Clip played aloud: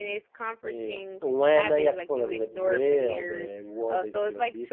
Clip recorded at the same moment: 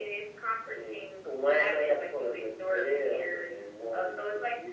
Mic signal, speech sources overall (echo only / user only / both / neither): echo only